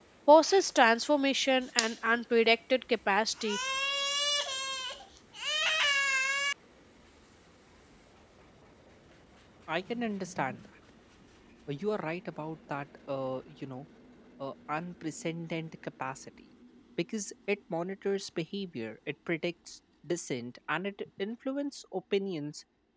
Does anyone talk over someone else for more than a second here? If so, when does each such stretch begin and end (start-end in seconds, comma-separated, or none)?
none